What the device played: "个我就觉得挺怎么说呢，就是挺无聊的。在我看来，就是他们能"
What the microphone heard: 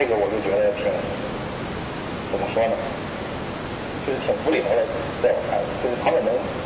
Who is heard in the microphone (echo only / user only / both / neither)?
echo only